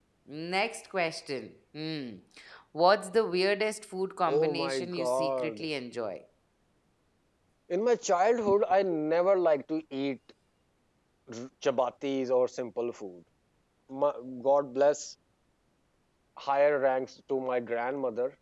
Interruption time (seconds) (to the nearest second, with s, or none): 4 s